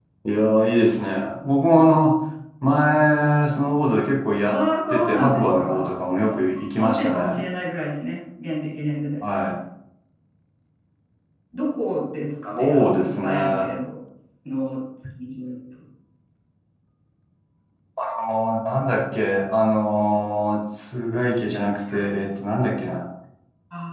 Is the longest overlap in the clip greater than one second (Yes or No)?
Yes